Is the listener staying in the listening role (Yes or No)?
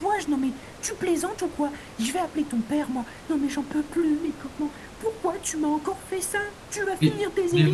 No